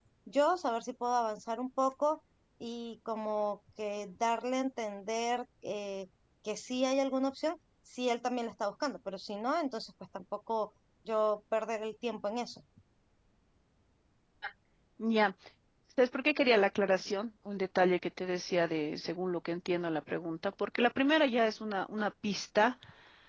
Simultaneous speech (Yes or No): No